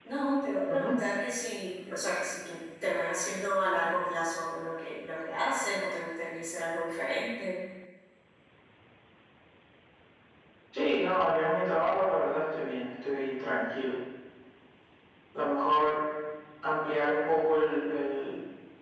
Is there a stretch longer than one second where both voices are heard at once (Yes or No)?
No